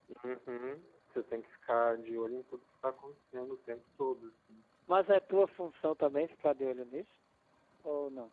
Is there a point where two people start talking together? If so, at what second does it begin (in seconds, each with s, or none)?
none